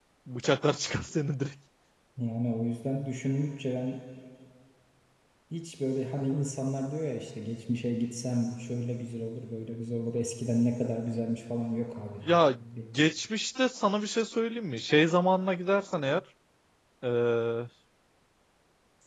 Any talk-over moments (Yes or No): No